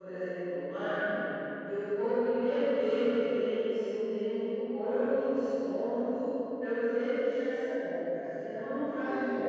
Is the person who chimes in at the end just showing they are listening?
No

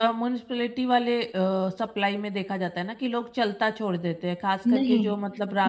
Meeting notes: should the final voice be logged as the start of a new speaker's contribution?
Yes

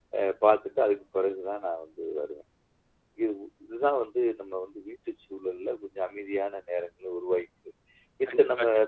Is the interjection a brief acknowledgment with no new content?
Yes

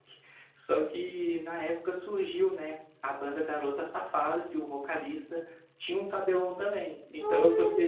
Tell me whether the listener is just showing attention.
No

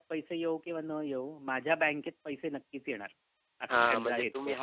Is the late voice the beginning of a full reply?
Yes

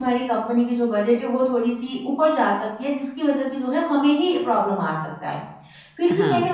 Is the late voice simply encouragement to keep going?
Yes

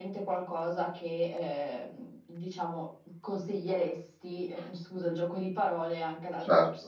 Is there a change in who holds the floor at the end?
Yes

